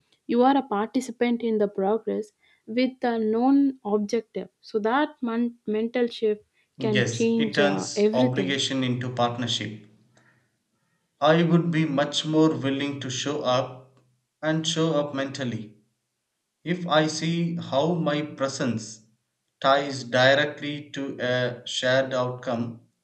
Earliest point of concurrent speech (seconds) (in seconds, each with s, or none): 6.8 s